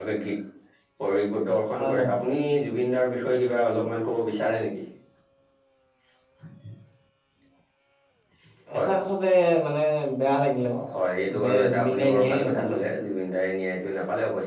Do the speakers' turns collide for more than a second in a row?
Yes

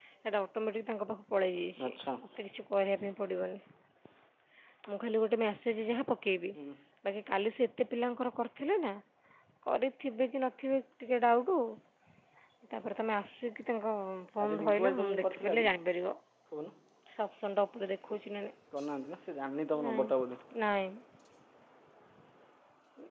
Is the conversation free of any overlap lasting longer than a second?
No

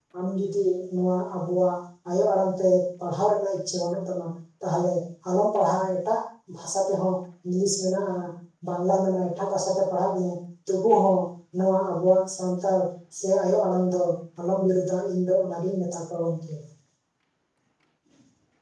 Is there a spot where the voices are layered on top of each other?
No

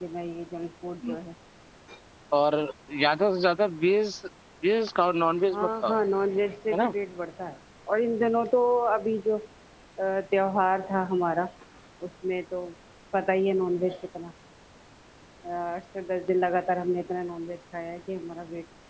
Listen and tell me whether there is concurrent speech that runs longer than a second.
No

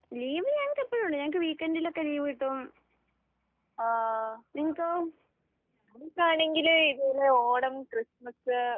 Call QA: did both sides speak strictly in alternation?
Yes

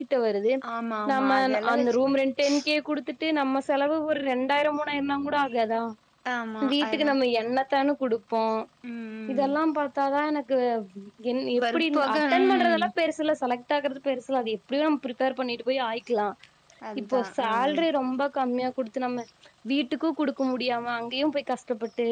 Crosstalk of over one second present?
Yes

